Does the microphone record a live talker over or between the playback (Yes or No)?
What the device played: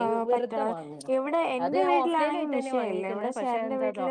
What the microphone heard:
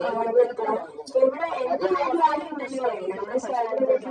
No